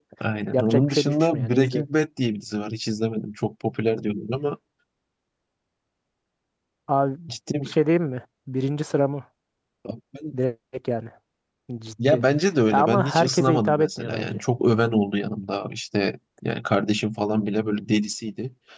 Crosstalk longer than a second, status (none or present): present